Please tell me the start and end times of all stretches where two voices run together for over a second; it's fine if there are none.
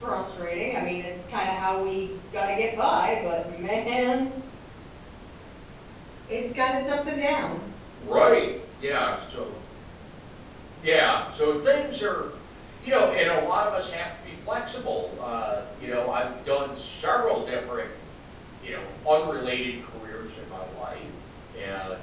none

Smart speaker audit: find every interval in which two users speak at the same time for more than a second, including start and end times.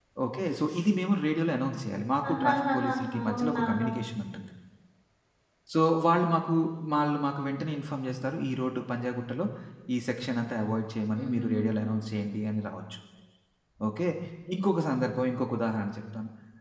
2.3-3.9

